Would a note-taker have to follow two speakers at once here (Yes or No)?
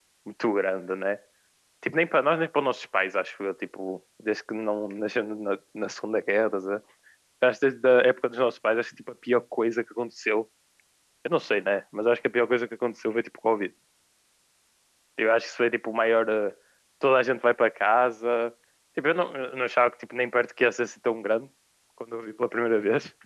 No